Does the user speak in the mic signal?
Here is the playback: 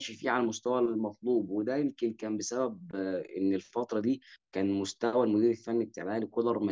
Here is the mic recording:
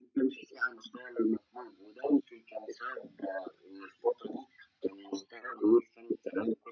No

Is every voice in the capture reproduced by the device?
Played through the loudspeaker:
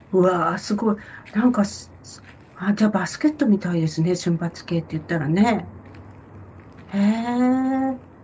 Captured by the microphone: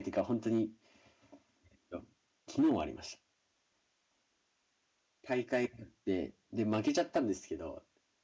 No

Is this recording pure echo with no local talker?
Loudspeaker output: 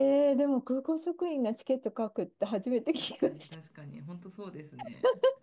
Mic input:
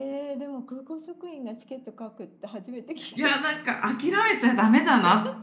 No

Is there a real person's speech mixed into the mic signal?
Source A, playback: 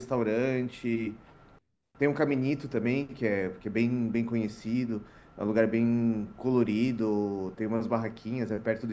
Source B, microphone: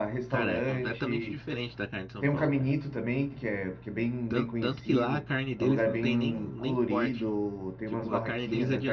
Yes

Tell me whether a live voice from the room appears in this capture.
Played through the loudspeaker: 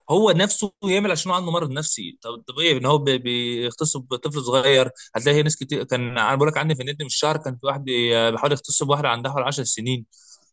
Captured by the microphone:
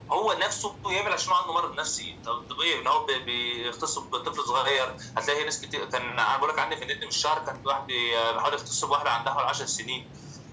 No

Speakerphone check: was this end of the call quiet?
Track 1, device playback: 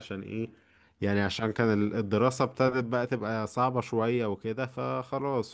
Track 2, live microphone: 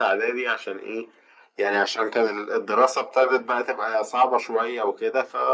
Yes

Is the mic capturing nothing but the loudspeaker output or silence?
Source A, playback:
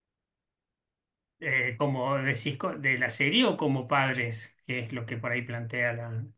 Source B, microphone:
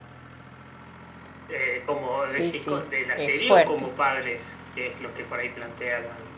No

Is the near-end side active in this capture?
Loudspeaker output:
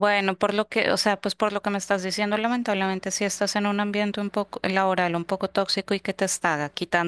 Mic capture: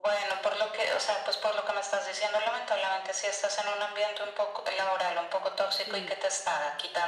Yes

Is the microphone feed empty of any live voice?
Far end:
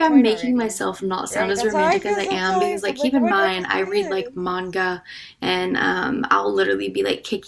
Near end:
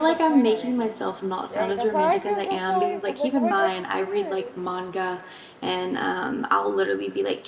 Yes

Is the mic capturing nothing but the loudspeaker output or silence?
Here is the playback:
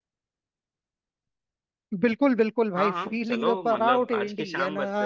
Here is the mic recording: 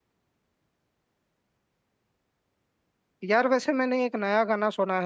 No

